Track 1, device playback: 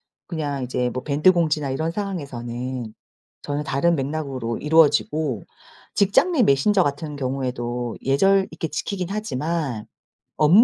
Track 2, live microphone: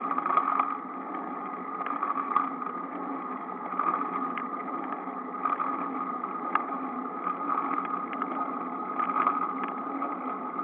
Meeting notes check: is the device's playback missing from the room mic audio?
Yes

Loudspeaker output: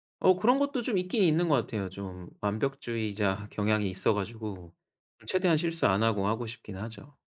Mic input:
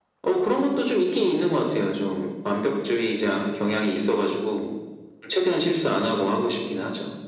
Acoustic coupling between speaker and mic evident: Yes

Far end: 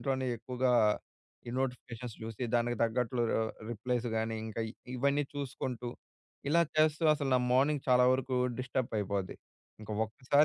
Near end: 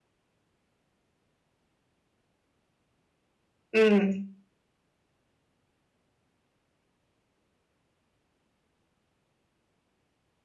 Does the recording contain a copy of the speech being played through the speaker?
No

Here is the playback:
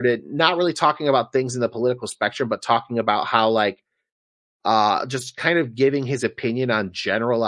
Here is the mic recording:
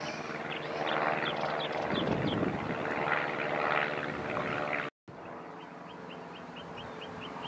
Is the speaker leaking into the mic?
No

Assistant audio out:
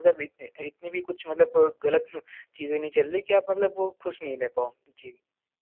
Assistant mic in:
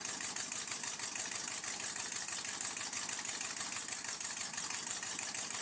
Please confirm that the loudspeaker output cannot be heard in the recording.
Yes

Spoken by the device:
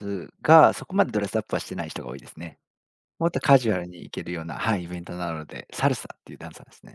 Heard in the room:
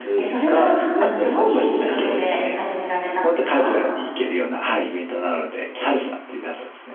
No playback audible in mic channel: No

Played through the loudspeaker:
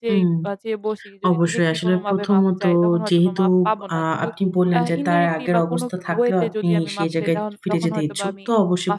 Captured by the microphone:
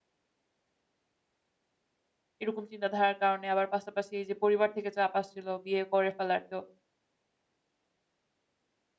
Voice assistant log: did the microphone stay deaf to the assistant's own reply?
Yes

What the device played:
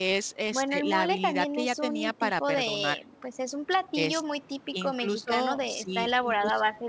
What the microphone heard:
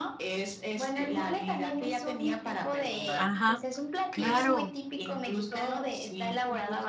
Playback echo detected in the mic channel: Yes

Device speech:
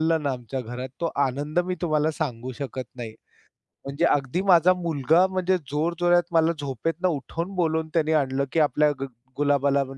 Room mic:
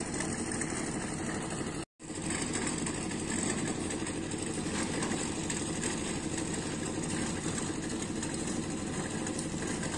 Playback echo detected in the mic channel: No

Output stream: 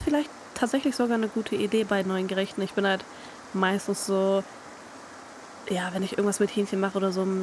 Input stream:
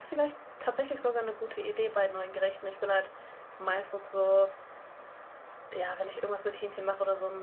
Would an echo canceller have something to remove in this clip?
Yes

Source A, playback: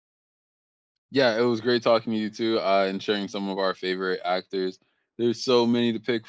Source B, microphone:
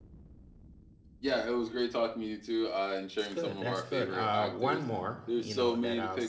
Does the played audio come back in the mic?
Yes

